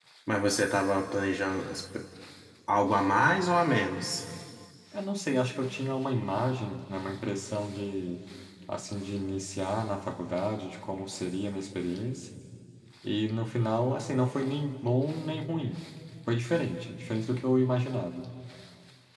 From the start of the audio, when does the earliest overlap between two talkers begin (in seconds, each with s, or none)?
none